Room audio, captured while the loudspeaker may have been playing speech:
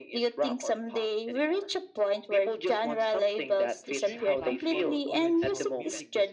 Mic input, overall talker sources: both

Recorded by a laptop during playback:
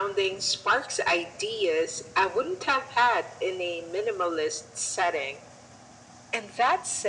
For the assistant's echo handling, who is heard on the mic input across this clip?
echo only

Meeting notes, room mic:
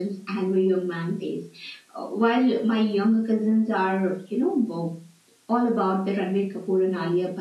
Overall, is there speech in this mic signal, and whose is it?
echo only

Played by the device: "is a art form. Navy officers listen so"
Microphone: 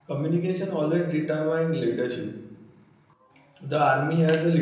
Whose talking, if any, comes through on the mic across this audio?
user only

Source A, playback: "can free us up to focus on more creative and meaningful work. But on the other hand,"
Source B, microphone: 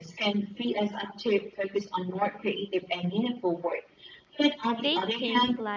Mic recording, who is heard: both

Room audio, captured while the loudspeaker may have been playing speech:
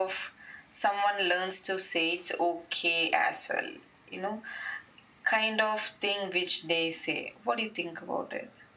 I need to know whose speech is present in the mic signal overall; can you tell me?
echo only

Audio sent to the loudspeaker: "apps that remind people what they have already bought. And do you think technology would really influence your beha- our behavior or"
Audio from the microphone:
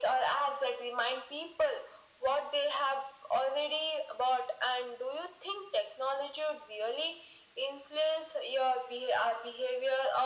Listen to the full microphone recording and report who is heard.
echo only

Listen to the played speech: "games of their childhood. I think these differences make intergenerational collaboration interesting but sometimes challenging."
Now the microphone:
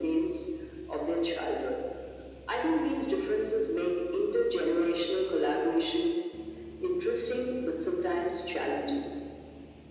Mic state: echo only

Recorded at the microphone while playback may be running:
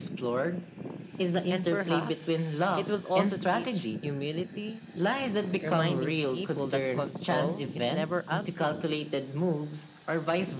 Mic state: both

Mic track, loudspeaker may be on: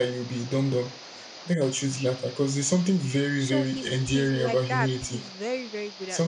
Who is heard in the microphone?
both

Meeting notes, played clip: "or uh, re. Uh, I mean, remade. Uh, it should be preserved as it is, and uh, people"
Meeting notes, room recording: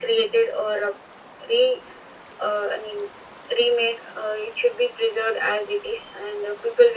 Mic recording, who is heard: echo only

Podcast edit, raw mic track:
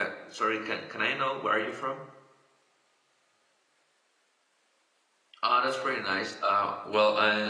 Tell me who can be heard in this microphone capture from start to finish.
user only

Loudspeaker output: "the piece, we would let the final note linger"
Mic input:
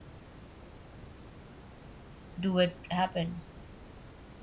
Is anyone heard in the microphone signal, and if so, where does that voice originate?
user only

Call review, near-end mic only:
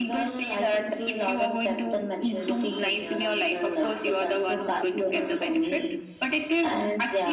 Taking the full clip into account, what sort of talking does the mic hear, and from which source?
echo only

